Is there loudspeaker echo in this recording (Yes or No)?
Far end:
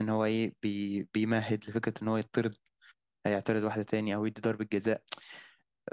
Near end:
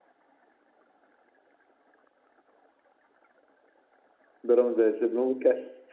No